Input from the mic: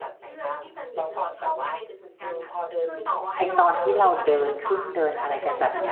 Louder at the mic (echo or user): user